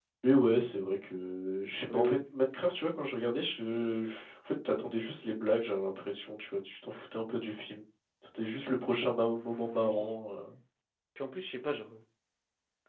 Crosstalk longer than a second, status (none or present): none